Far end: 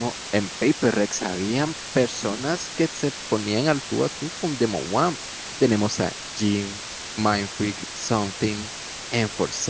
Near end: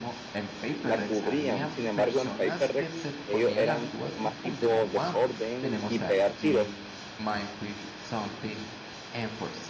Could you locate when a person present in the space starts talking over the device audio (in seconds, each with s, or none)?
0.9 s